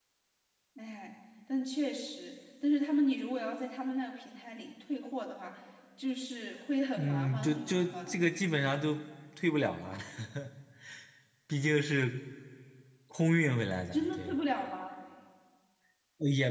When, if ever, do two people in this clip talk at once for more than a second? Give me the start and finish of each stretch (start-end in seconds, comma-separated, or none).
7.0-8.2